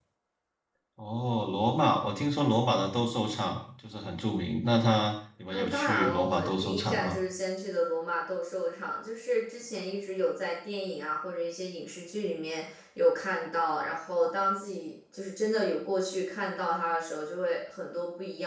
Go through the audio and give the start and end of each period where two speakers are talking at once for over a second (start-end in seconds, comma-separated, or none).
5.5-7.2